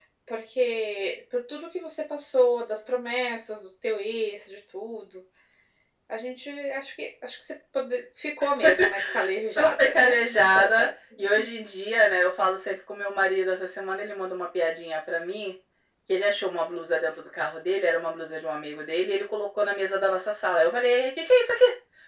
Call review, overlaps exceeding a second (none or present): present